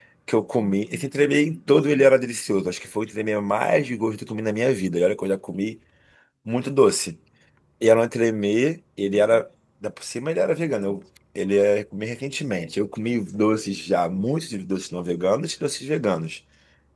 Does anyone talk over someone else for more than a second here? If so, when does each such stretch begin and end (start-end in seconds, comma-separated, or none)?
none